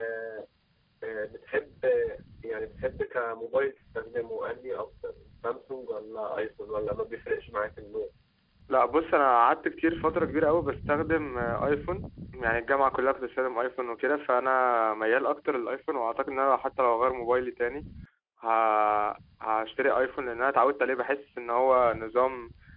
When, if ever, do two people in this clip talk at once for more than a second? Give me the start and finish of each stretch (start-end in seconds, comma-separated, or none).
none